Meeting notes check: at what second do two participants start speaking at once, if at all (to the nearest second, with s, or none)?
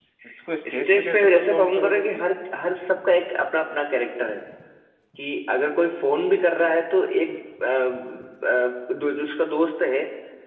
1 s